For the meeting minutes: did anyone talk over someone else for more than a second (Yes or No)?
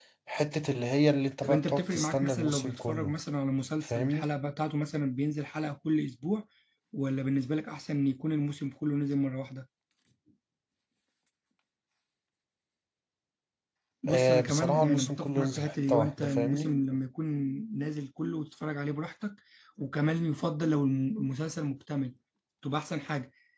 Yes